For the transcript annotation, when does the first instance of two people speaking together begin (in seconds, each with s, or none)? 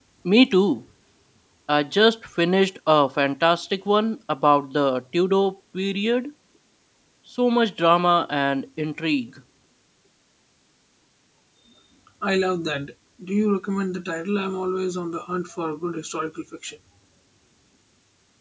none